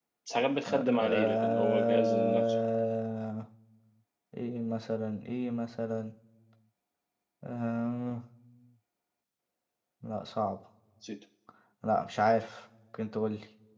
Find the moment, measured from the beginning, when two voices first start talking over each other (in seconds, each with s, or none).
0.7 s